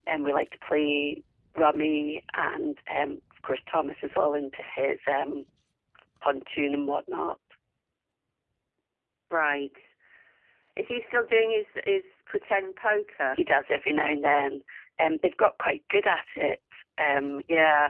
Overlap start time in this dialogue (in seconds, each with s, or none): none